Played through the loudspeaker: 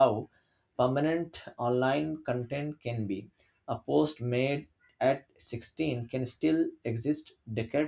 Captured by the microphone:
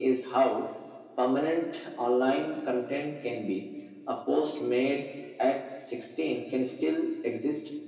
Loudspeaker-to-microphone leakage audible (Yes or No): Yes